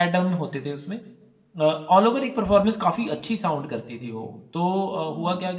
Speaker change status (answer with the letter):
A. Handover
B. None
B